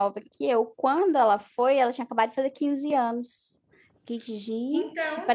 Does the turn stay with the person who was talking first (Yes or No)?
Yes